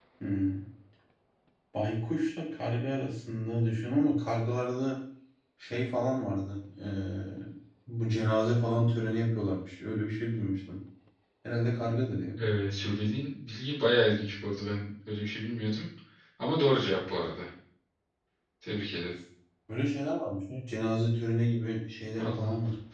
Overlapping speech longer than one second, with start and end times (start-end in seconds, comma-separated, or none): none